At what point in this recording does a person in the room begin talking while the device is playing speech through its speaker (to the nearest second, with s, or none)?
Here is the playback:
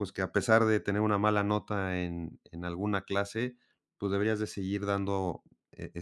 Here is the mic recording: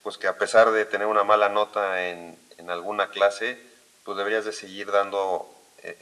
none